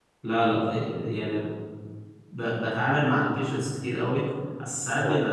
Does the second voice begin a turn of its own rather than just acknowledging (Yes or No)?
No